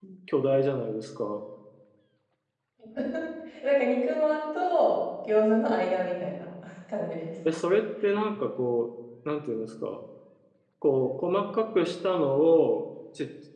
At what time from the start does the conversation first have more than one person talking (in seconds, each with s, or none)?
none